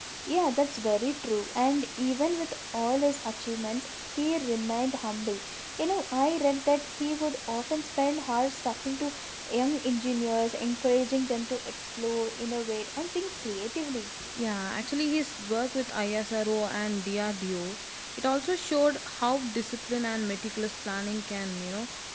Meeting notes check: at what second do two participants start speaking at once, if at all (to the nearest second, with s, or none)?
none